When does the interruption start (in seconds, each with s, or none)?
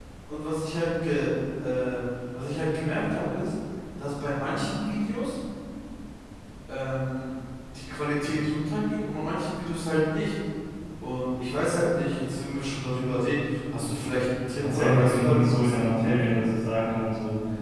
14.6 s